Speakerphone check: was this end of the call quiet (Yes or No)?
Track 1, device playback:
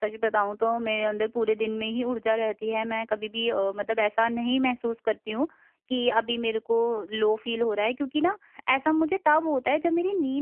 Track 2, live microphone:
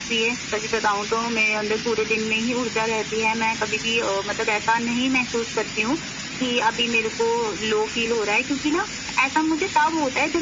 Yes